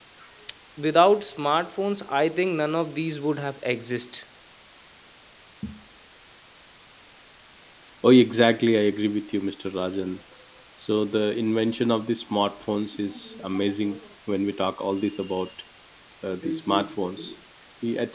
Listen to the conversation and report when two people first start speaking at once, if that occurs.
none

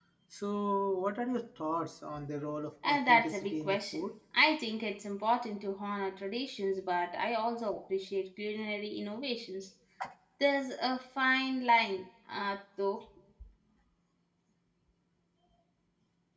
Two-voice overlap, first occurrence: 3 s

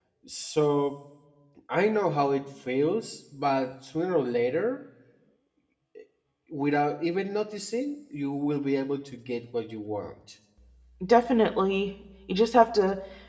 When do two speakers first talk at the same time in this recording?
none

